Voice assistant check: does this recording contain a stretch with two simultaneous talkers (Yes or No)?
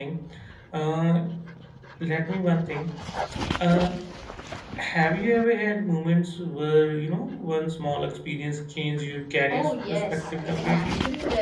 Yes